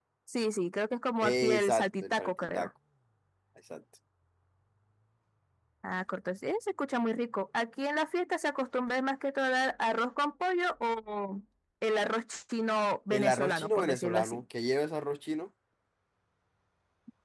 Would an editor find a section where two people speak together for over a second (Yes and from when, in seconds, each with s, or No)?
Yes, from 1.2 s